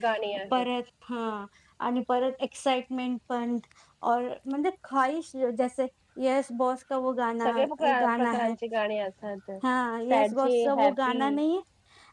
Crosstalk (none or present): present